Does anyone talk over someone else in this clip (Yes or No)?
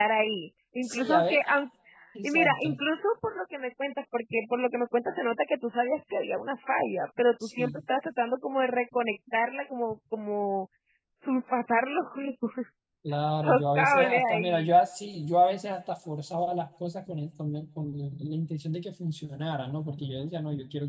Yes